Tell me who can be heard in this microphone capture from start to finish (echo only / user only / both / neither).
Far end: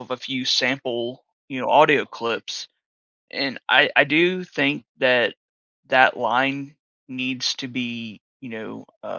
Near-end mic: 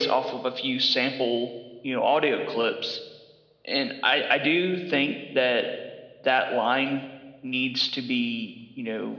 echo only